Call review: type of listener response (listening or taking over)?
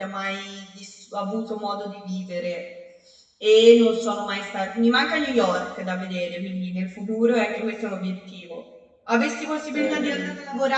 listening